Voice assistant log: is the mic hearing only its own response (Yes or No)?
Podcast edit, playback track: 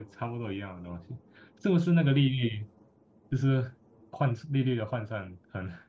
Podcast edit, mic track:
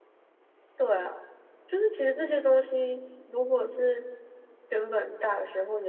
No